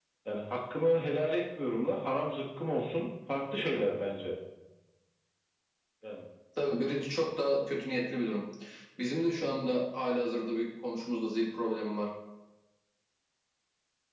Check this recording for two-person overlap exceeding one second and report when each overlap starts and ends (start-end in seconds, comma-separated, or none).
none